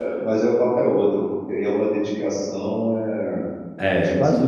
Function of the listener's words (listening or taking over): taking over